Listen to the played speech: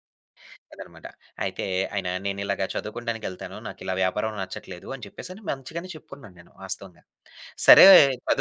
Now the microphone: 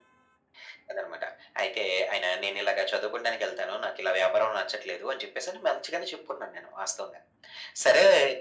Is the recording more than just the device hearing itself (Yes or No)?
No